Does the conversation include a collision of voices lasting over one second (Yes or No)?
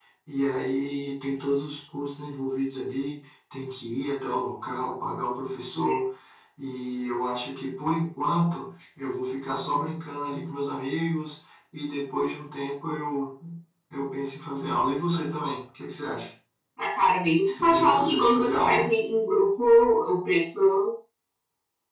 Yes